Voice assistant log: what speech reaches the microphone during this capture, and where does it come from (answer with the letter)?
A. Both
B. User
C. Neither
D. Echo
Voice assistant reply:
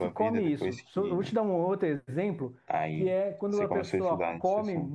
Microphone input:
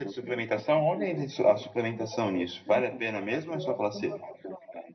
A